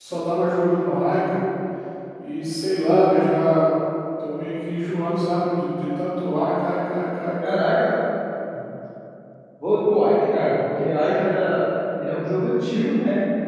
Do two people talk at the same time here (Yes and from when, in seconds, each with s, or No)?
No